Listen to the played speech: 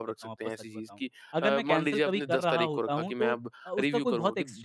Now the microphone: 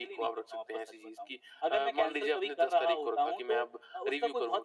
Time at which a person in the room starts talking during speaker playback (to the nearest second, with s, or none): none